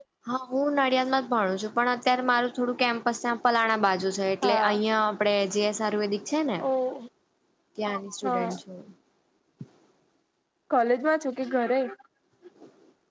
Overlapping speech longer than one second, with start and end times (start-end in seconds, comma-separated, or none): none